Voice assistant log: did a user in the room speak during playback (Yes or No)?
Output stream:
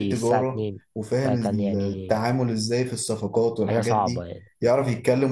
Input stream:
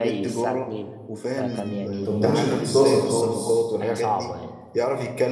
Yes